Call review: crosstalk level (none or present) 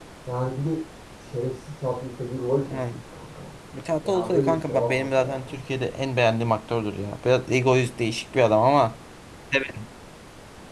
present